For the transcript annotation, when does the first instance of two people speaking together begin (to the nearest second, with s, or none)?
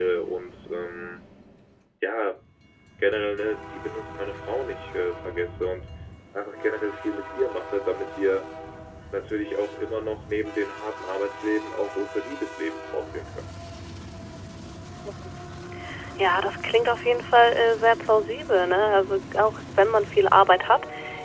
none